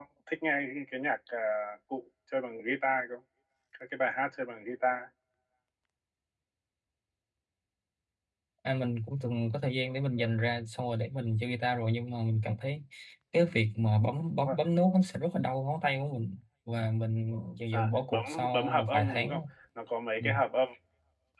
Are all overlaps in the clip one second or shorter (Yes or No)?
No